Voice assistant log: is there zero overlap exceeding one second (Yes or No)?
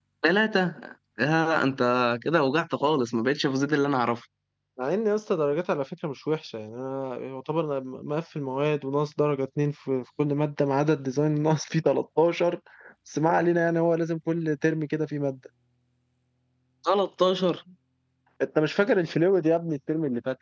Yes